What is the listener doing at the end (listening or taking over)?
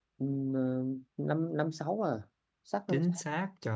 taking over